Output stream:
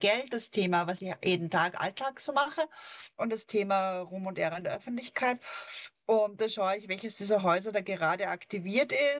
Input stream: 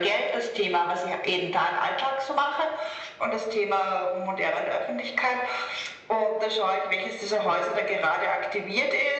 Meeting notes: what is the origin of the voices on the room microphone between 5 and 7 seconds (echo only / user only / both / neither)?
echo only